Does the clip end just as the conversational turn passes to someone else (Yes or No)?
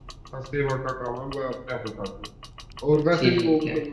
No